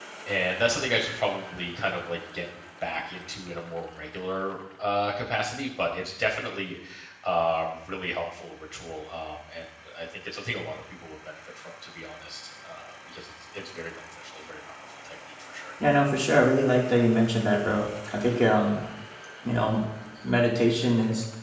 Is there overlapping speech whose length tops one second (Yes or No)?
No